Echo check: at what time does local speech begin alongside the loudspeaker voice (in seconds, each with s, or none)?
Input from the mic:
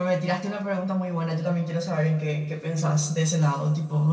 none